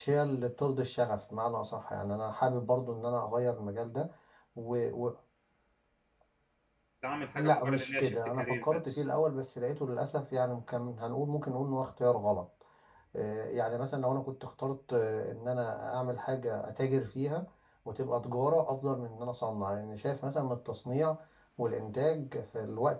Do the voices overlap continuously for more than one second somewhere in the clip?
Yes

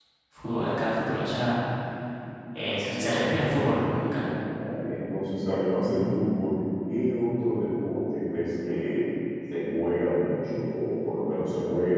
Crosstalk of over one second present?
Yes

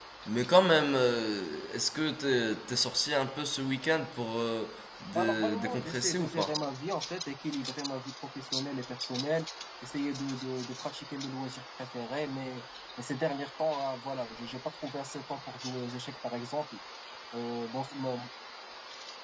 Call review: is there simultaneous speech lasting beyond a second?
Yes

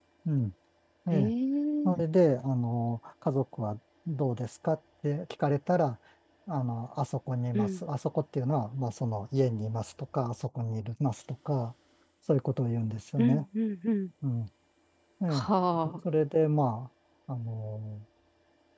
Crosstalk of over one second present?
No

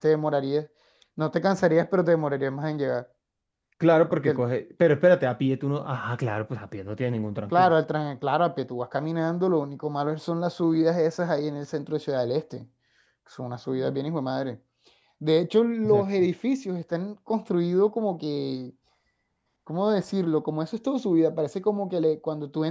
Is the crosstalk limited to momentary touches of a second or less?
Yes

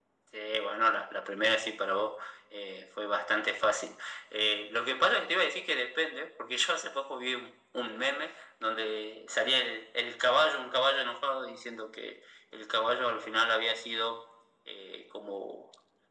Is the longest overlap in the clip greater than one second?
No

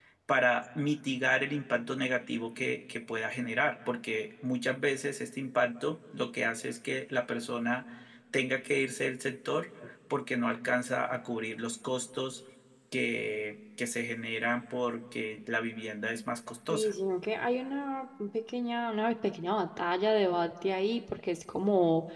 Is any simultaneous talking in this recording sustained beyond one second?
No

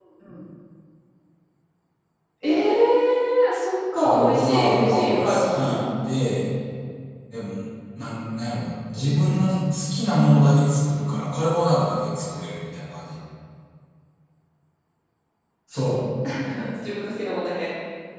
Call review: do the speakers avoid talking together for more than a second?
No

